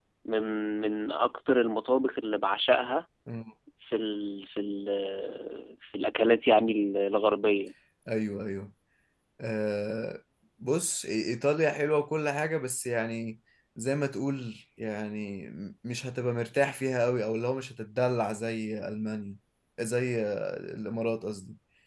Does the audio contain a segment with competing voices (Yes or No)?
No